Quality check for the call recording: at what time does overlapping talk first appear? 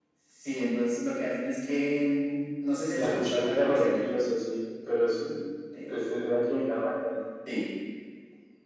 3.0 s

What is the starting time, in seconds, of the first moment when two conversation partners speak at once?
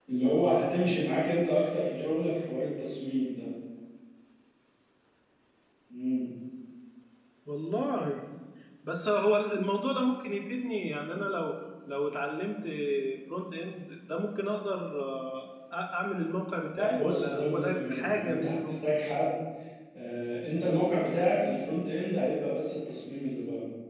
16.8 s

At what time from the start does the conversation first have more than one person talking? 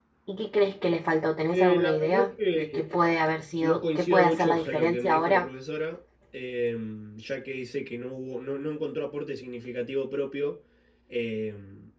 1.5 s

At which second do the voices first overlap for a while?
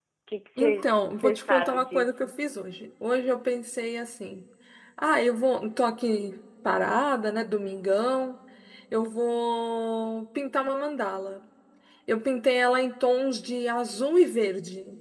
0.6 s

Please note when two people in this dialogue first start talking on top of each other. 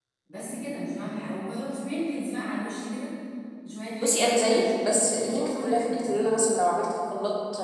4.0 s

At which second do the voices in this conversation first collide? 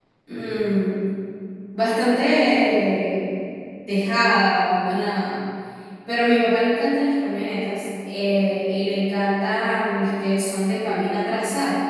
none

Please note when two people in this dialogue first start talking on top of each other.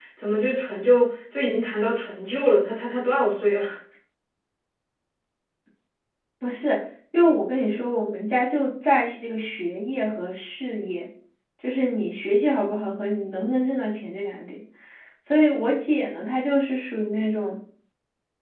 none

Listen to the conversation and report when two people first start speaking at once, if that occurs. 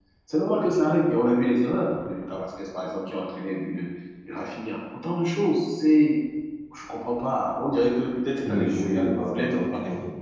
8.4 s

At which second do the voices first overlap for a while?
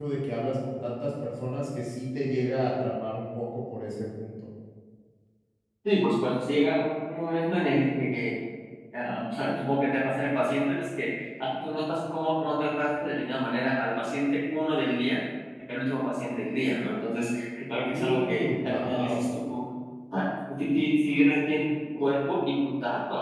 17.9 s

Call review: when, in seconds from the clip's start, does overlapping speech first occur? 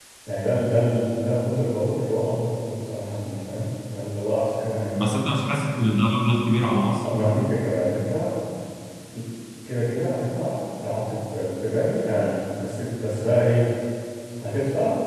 none

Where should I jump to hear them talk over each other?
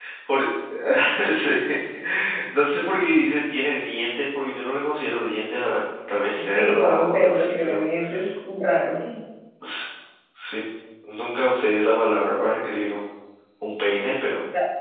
6.4 s

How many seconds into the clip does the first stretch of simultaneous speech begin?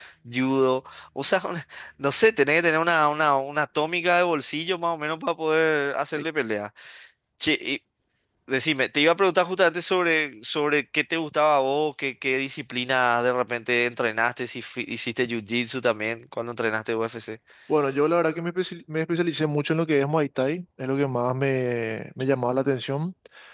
none

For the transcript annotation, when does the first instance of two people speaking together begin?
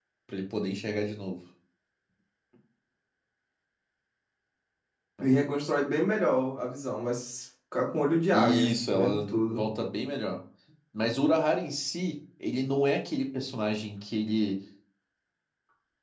8.3 s

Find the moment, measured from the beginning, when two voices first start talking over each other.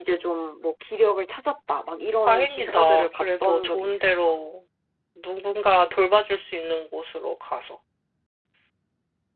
2.3 s

